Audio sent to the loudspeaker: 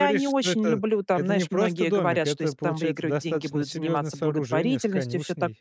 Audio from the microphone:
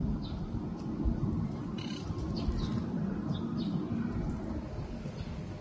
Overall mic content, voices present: neither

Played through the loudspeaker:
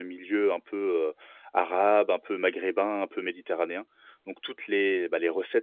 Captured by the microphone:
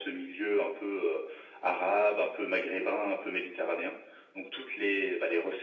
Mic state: echo only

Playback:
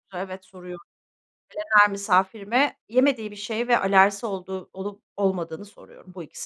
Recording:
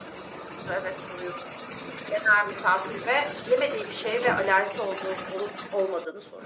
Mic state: echo only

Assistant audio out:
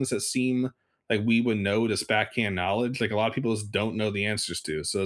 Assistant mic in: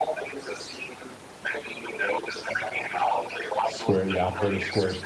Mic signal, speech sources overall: both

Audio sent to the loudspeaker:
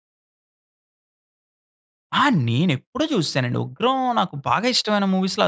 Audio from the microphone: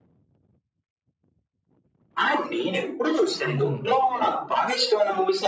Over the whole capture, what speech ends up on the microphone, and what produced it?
both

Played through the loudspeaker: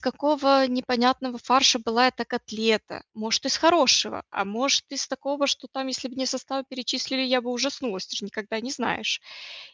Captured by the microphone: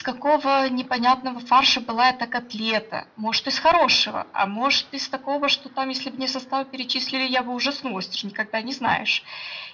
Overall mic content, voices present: echo only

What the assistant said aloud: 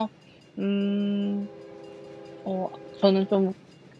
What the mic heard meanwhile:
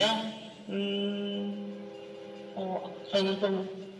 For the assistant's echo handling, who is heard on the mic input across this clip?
echo only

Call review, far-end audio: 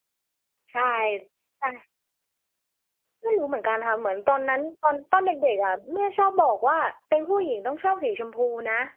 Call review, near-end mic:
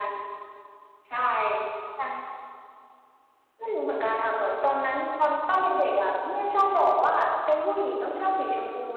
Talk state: echo only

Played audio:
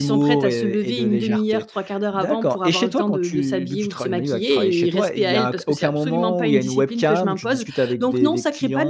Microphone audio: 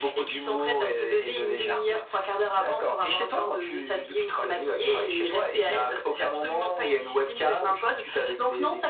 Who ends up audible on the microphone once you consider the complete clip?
echo only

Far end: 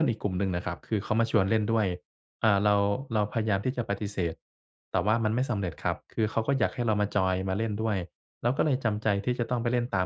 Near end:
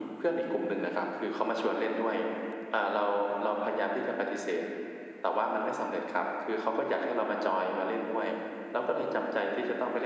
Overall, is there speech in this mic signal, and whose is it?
echo only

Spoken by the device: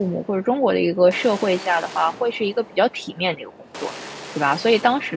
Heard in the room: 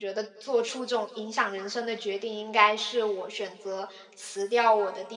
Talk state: user only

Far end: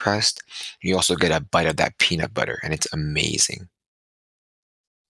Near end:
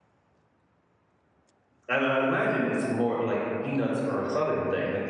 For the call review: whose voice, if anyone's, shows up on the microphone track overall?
user only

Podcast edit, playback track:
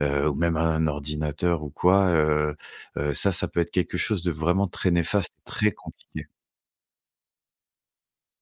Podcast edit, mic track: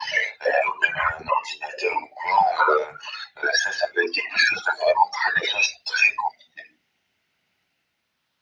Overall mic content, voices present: echo only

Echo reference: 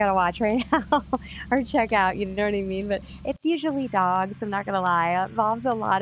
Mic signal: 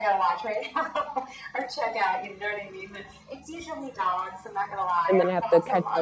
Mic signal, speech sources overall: both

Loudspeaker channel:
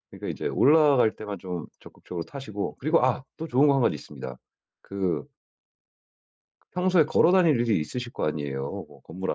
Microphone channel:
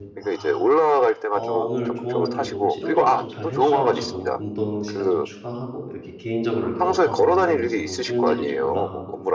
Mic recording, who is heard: both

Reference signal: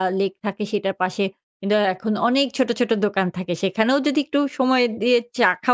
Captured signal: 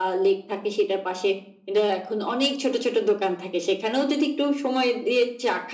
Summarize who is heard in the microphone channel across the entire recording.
echo only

